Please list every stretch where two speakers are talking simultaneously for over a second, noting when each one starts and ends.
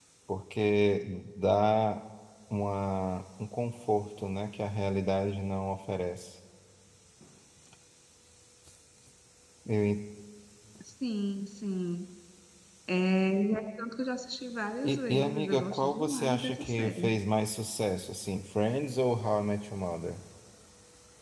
14.8-17.1

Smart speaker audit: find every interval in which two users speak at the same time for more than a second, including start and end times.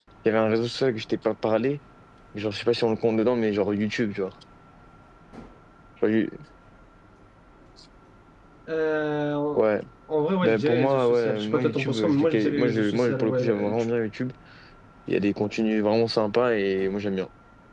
10.4-13.8

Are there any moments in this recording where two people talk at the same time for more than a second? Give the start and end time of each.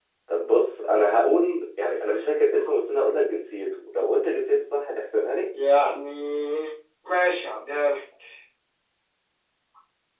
none

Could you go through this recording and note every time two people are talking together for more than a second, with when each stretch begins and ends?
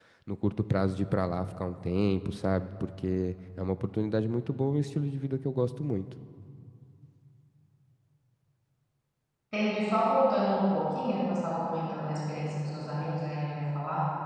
none

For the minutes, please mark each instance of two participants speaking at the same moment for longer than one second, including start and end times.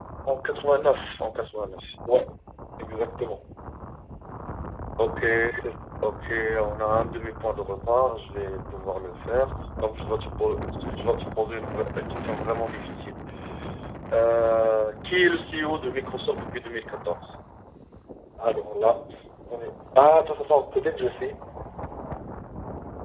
none

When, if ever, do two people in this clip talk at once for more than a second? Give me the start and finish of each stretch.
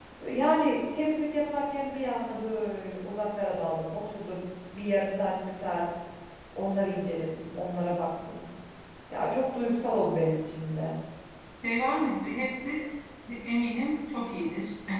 none

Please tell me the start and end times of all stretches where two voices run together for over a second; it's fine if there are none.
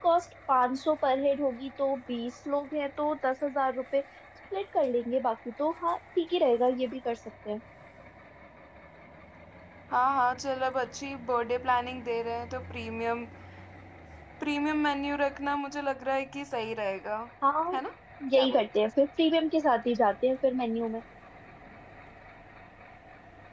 none

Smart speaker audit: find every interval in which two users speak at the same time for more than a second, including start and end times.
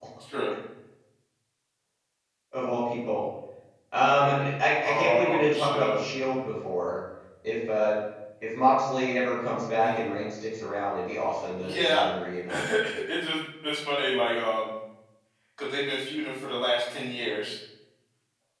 4.8-6.1

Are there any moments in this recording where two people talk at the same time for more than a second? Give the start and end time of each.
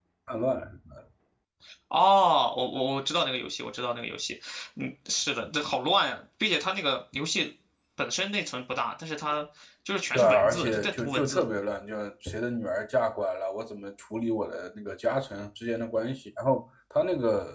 10.1-11.4

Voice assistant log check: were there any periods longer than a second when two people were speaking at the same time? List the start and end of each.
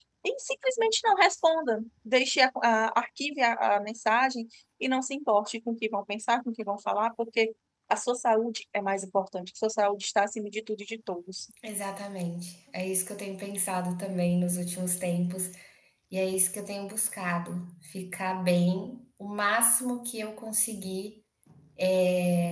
none

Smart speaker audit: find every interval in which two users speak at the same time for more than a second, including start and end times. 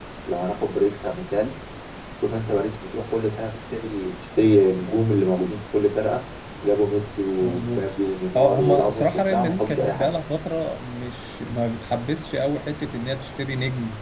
8.4-10.1

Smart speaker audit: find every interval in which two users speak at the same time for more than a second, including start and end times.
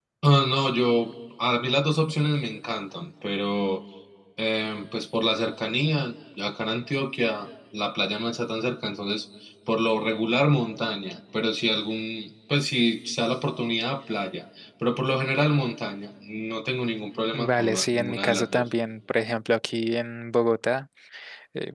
17.3-18.6

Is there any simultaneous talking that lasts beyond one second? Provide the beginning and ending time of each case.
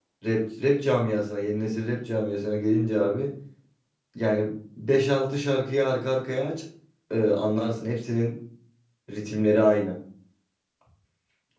none

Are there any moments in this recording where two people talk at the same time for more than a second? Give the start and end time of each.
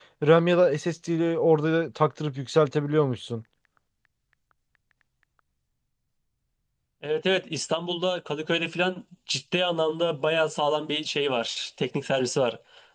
none

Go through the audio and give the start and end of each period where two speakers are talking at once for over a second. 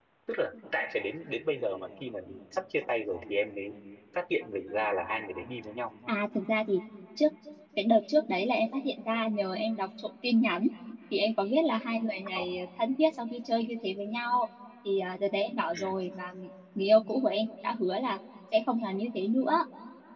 none

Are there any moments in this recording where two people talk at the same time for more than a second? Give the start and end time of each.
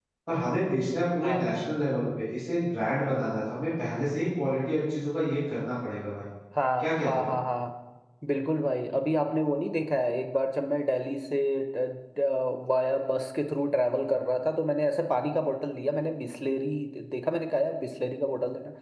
none

